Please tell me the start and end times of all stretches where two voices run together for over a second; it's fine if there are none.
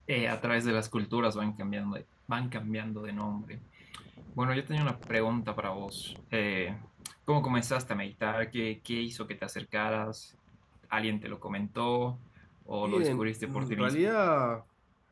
12.8-14.1

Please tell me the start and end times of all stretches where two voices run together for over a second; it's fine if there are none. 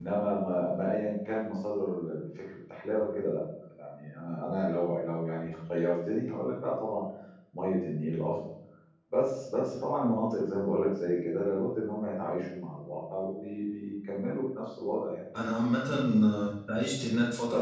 none

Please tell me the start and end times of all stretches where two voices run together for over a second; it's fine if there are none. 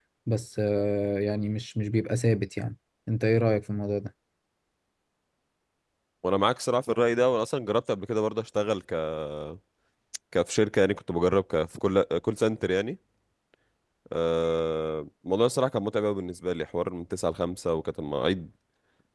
none

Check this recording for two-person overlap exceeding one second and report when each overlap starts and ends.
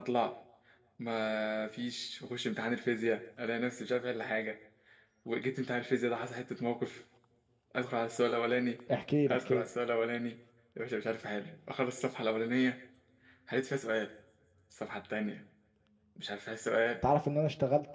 none

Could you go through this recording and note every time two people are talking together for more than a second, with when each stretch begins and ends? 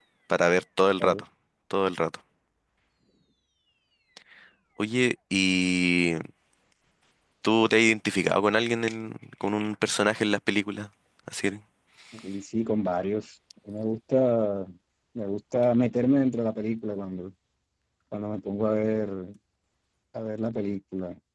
none

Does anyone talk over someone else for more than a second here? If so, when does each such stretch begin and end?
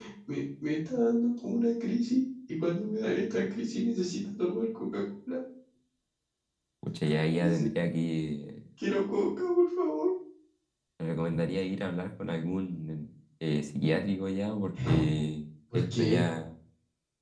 none

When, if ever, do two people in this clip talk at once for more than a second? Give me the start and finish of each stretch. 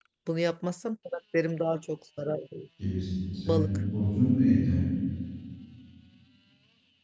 none

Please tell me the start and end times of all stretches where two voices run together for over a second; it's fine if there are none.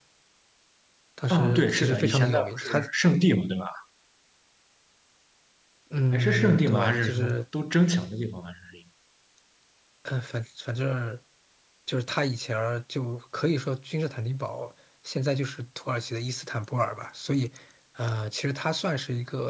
1.3-2.8, 6.1-7.4

